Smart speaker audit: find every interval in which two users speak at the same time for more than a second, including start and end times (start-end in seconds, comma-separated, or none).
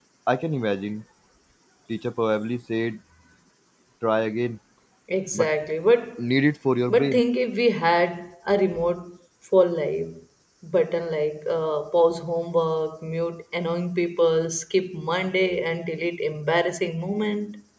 none